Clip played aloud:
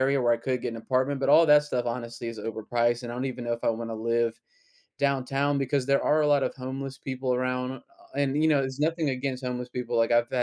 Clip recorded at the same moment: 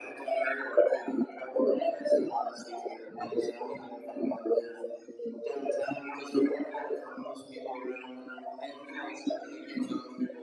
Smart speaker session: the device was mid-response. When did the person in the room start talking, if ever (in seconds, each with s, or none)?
none